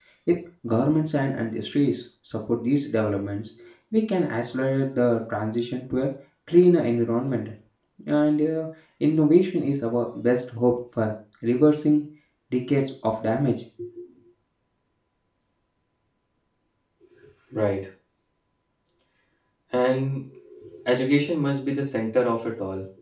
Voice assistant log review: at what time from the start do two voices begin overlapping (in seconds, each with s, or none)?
none